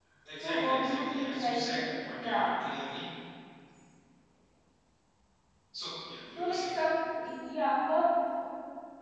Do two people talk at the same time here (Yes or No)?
Yes